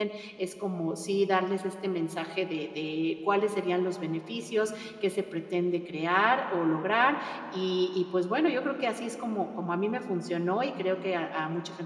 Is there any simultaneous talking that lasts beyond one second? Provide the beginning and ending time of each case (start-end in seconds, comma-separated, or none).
none